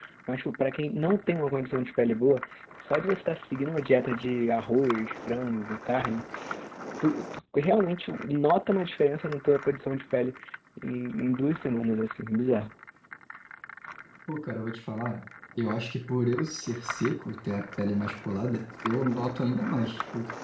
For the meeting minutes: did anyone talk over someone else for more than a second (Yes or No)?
No